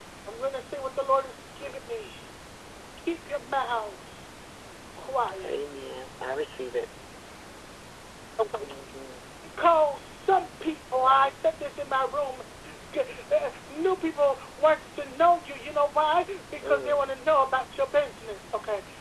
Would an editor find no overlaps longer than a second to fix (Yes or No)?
Yes